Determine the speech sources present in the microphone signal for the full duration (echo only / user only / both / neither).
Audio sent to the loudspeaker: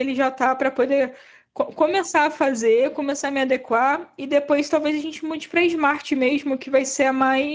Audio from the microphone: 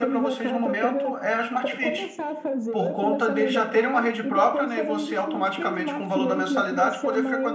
both